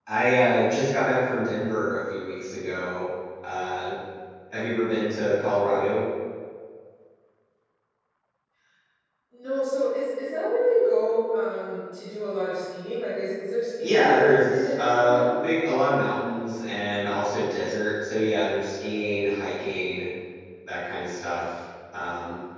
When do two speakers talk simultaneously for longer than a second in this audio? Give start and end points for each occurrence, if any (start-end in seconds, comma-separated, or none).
13.8-15.4